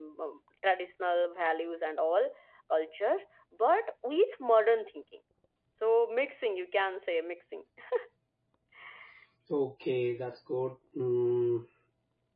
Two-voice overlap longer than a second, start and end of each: none

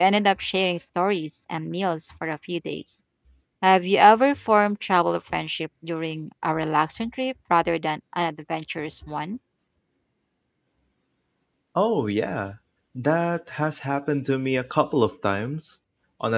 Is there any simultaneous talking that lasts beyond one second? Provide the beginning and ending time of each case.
none

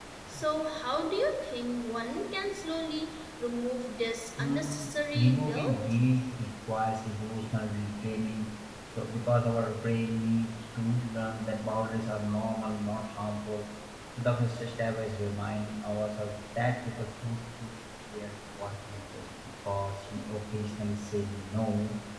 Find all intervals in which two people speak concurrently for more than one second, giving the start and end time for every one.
4.4-5.8

